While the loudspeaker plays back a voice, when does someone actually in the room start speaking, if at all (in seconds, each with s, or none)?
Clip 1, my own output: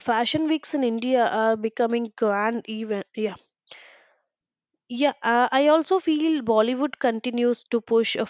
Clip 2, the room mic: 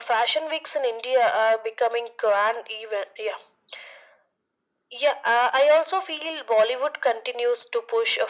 none